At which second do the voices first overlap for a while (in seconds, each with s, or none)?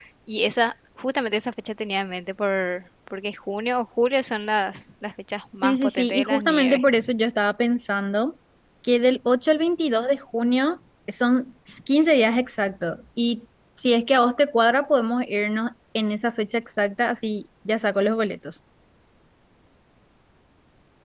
5.6 s